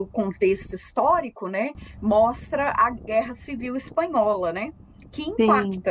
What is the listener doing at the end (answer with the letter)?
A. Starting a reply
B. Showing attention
B